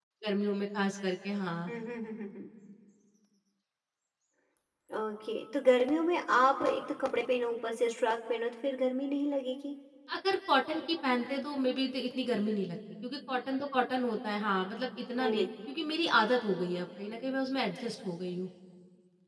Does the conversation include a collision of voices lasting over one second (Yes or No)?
No